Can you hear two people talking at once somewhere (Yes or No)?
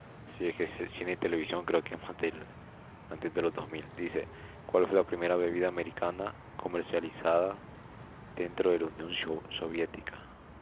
No